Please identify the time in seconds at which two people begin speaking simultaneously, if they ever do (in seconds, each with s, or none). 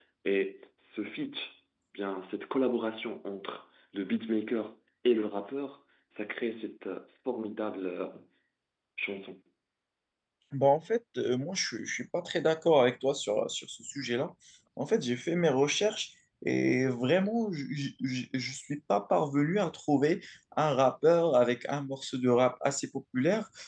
none